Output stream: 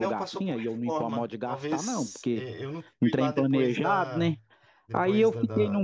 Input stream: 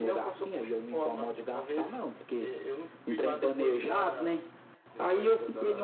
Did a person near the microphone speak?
No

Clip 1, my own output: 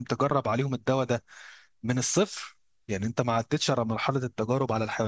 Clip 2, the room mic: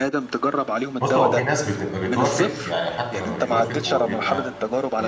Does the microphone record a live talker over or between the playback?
Yes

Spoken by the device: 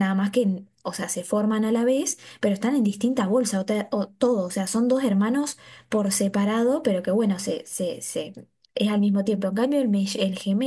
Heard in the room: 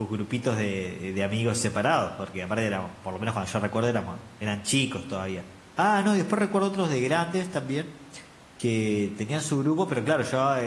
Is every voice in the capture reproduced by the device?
No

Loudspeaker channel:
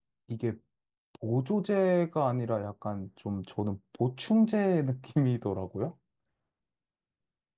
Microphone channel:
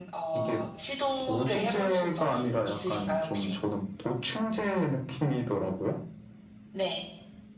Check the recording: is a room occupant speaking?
Yes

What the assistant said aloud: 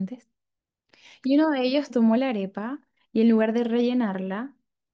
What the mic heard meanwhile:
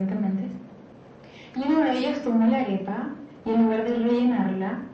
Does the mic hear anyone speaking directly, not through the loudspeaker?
No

